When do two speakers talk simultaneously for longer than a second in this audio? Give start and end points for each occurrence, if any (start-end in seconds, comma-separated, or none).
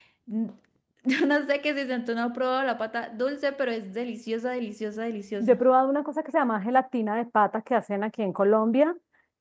none